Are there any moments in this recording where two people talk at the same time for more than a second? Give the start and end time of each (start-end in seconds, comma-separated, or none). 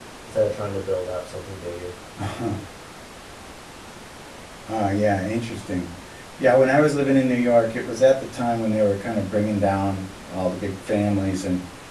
none